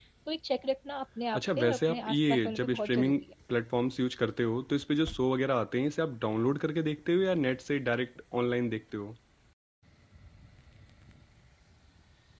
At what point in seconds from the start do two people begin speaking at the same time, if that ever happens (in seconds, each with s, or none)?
1.3 s